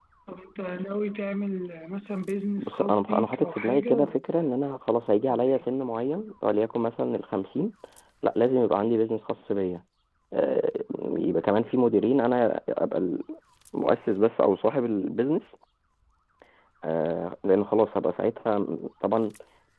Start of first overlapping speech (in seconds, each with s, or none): 2.6 s